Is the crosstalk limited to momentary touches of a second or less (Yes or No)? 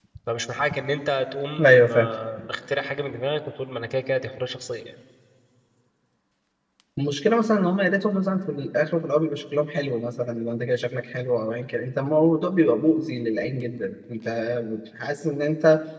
Yes